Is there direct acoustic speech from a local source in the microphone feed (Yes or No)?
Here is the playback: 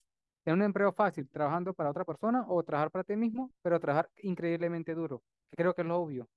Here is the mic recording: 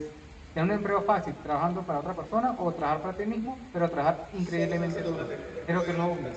Yes